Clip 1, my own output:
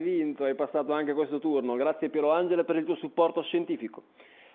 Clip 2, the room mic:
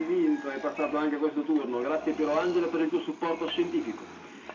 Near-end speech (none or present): none